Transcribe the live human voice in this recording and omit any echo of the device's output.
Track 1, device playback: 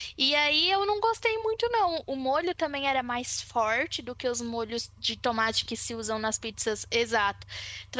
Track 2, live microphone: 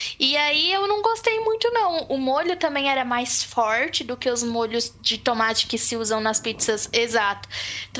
none

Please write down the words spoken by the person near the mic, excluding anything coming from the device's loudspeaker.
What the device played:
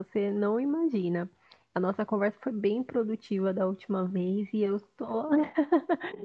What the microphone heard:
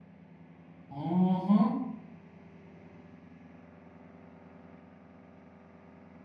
Uhum.

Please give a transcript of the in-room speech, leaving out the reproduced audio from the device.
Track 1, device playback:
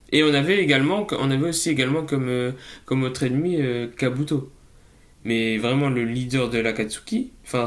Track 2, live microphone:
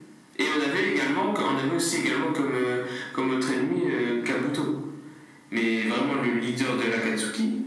none

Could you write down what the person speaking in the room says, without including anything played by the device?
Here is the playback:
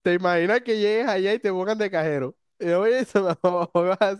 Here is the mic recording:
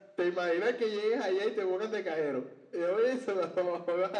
none

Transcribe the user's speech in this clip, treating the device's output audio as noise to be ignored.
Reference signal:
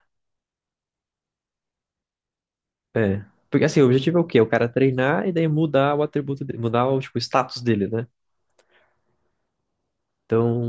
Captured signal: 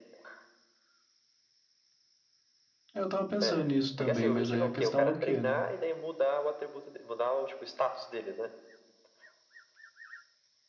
Eu tava pensando nisso também, mas aí a questão é o quê, né?

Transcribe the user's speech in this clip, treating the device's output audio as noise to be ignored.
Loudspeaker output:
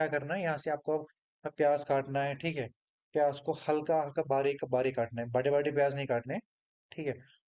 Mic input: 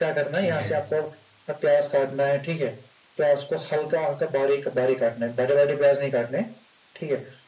ठीक है

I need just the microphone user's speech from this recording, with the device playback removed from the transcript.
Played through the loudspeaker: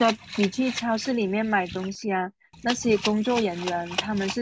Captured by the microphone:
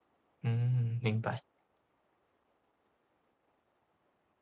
嗯，明白。

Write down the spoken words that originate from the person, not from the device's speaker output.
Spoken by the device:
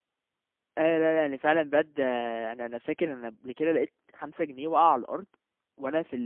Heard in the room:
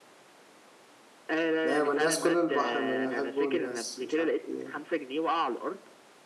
لا يا من الناس كل البحر من يحبه الناس مش عارف إيه

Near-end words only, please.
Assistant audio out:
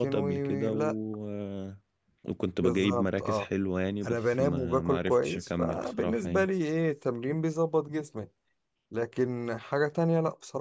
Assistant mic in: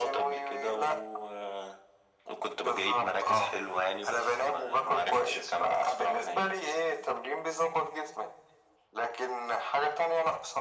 none

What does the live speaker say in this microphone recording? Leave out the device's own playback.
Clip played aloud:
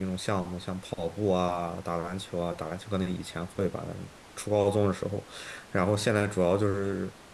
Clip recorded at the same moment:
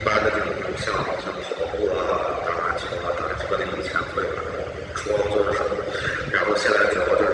none

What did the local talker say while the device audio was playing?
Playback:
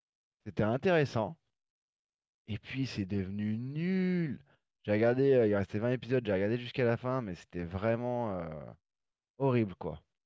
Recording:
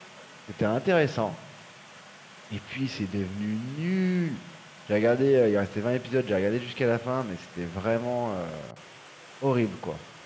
none

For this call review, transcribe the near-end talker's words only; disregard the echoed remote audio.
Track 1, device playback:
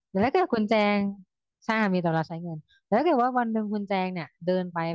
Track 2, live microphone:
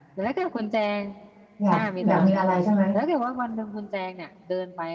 อยากอยากมีอะไรใช่ไหม

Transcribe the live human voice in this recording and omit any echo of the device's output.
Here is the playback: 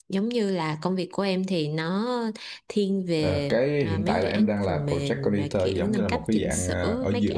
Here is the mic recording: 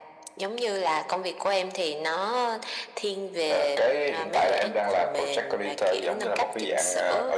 none

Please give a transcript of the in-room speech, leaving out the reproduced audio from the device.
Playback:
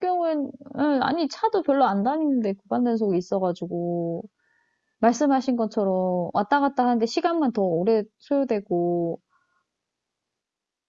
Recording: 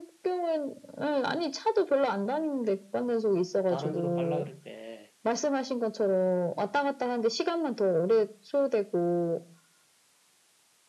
다른 데로 갈라 그럴 때

